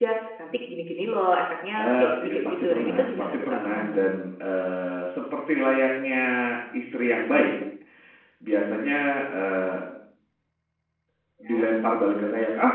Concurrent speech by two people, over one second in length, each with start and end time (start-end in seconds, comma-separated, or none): 1.8-4.0